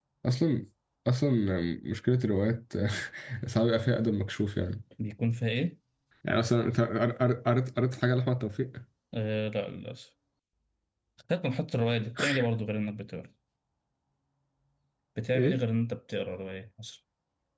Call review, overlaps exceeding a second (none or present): none